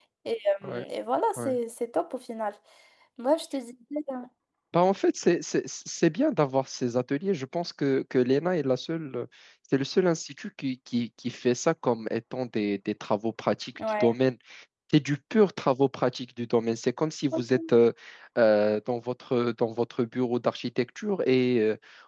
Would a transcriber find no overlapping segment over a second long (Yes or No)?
Yes